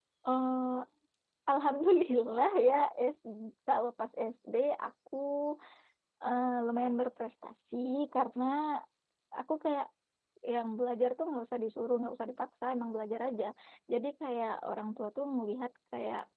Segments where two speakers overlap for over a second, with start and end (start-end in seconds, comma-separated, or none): none